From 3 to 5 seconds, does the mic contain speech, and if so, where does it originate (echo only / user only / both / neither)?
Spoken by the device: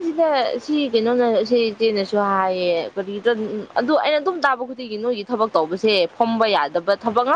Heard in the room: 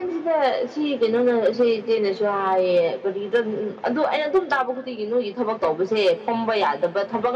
echo only